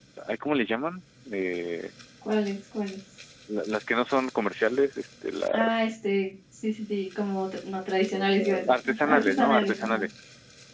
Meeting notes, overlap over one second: present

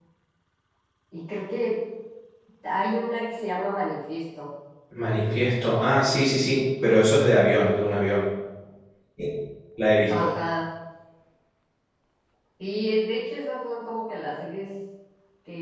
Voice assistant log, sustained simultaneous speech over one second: none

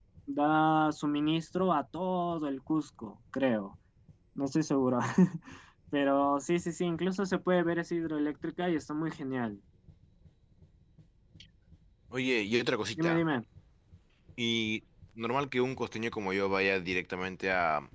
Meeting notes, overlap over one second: none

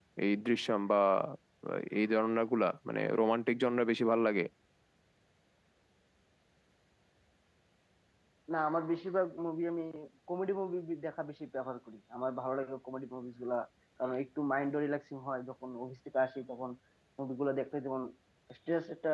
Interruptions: none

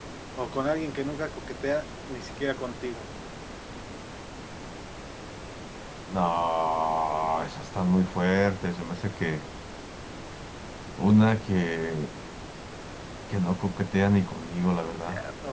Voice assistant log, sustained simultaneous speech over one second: none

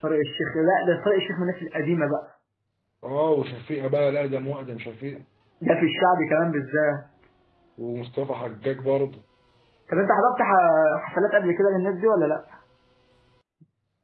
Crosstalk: none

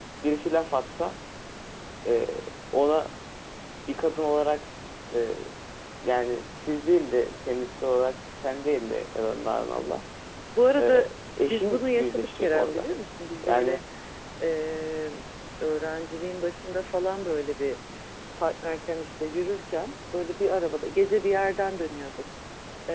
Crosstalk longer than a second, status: present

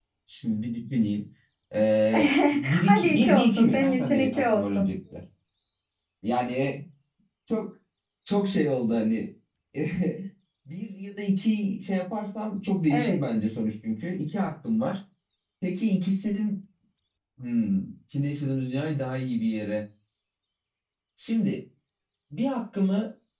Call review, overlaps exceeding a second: present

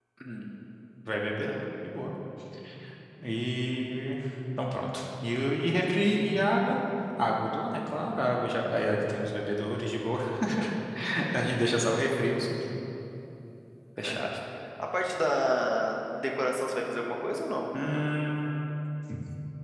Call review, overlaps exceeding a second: none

